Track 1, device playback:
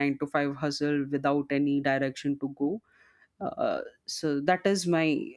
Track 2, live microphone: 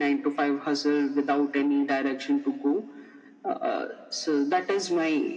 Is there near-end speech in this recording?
No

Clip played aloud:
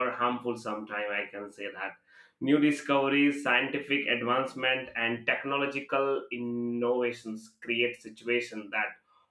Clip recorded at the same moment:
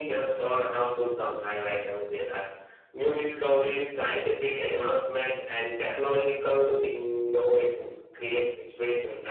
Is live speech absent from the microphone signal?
Yes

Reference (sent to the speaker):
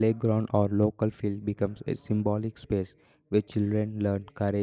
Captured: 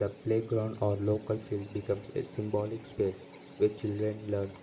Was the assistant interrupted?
No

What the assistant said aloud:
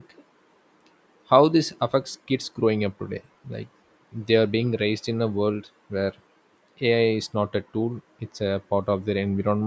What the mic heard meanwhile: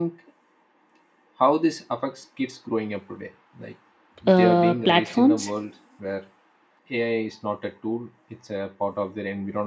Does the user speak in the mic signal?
Yes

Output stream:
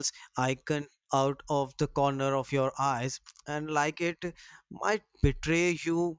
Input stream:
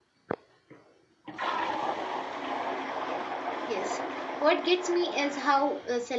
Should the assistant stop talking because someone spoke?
Yes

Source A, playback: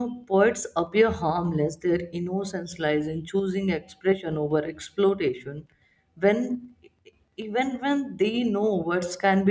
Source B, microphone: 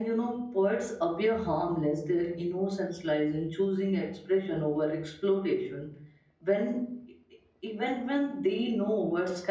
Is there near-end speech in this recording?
No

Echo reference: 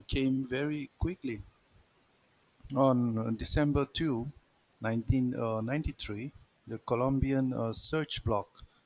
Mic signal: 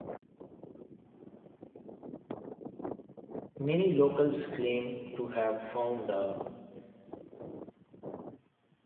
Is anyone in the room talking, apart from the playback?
Yes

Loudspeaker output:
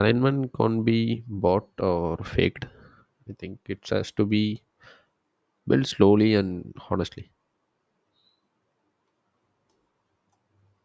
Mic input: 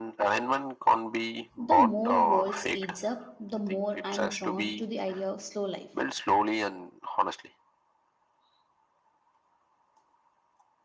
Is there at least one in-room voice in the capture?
Yes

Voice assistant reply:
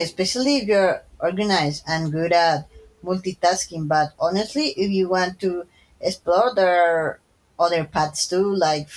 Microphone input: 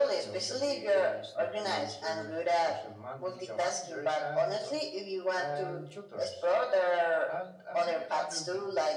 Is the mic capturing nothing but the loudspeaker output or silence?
No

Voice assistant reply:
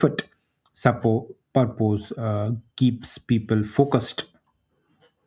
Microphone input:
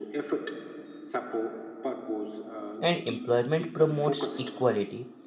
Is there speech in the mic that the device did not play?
Yes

